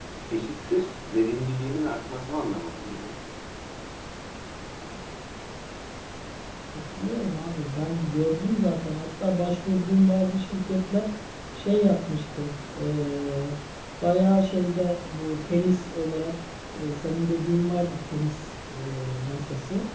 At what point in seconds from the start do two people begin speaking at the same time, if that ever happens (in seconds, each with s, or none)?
none